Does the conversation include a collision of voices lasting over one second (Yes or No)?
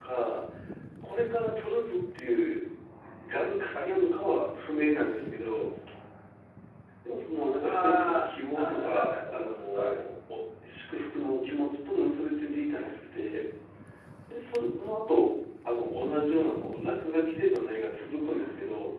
Yes